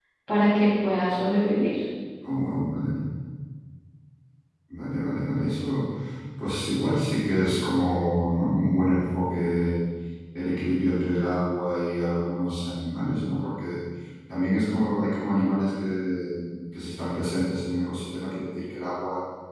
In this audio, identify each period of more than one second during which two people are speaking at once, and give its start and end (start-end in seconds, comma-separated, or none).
none